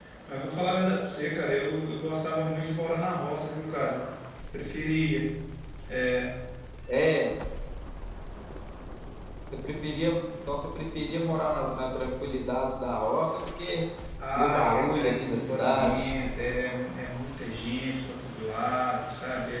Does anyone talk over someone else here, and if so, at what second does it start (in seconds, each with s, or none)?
14.3 s